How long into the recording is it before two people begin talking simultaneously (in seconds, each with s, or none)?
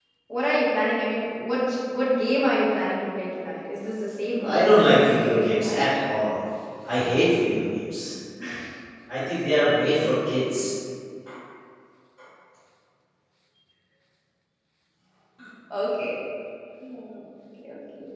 4.4 s